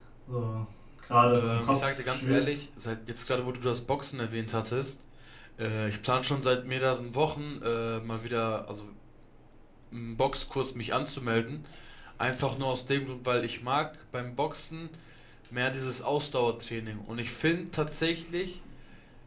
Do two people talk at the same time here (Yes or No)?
Yes